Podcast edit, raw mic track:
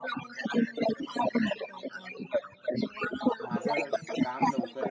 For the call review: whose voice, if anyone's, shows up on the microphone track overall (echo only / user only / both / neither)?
both